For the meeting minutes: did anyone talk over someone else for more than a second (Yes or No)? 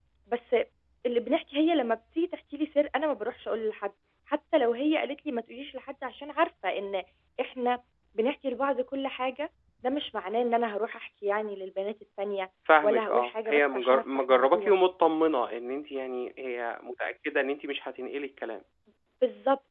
Yes